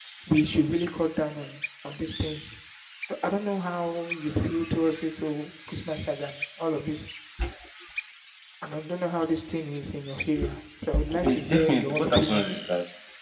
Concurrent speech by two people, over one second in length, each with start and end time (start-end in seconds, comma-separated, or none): 11.2-12.5